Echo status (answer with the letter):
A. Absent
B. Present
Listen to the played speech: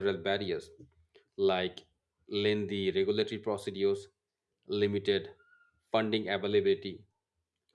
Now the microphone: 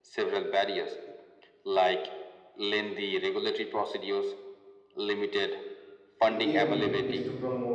B